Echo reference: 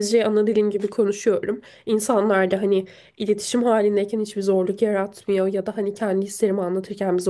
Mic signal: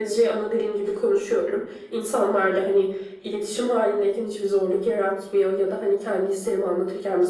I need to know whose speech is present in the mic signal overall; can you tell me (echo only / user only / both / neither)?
echo only